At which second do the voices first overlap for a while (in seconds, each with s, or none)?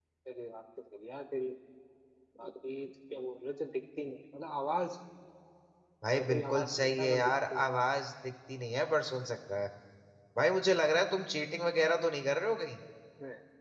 6.2 s